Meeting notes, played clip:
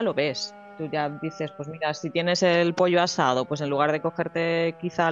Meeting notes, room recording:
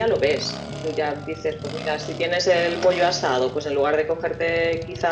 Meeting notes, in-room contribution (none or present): none